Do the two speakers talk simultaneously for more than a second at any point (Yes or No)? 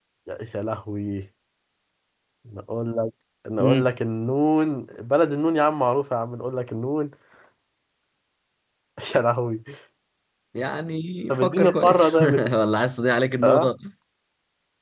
Yes